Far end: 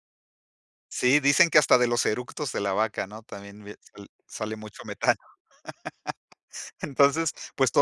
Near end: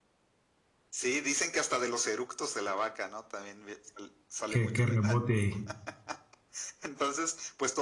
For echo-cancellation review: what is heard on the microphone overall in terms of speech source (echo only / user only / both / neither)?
both